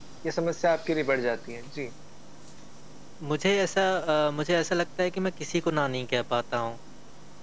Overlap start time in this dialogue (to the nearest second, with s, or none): none